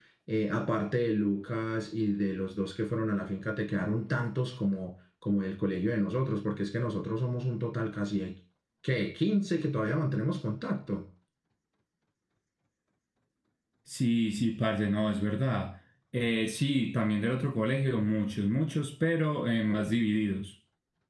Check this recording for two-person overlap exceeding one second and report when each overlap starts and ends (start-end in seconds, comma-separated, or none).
none